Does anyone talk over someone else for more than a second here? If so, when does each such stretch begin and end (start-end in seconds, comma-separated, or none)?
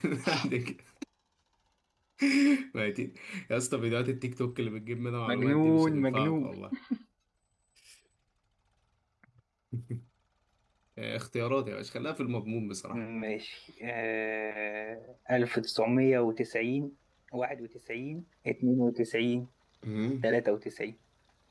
5.3-6.5